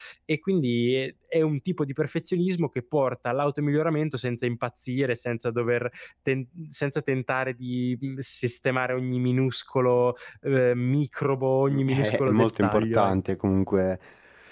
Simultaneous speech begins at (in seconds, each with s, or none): 11.7 s